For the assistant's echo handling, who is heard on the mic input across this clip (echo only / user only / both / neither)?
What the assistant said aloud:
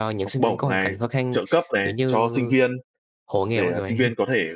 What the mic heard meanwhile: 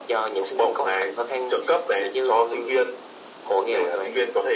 echo only